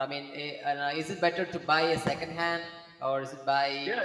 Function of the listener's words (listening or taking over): taking over